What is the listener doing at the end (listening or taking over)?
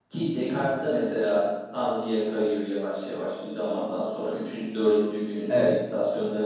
listening